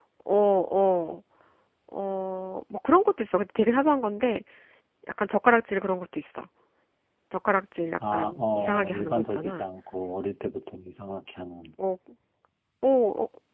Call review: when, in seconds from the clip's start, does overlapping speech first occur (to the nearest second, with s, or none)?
8 s